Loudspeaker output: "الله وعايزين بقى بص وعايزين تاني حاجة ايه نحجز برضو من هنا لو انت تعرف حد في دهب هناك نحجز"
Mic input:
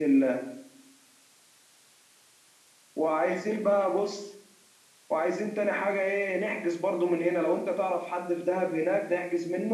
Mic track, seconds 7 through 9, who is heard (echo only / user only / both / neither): echo only